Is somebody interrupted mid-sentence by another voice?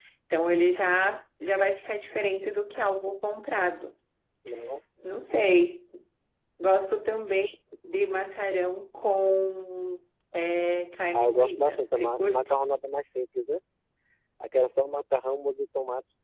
Yes, from 11.1 s

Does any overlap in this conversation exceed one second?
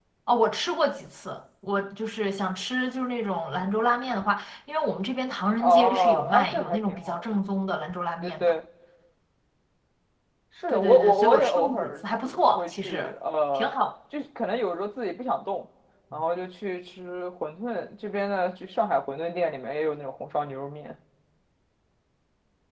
Yes, from 5.6 s

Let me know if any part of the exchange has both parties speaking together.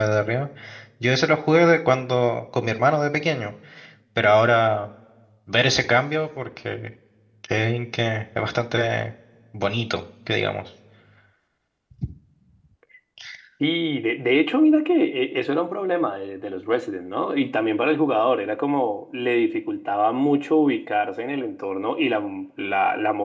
No

